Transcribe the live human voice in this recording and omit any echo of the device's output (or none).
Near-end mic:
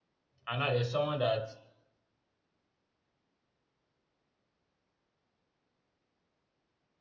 And now there's someone that